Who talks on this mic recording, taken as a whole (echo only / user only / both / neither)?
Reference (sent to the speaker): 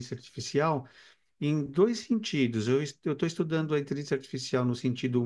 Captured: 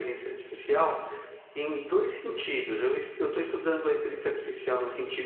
echo only